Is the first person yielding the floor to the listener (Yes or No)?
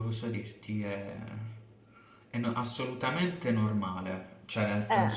No